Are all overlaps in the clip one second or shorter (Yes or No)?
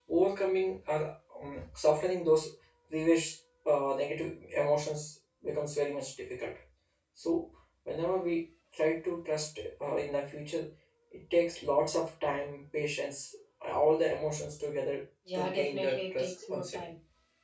No